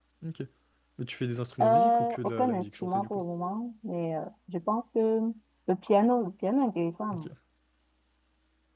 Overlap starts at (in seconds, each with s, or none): 1.6 s